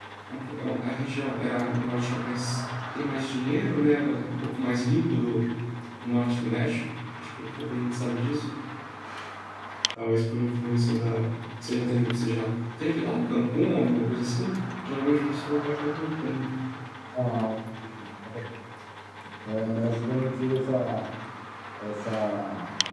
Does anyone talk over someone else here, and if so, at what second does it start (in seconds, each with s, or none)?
none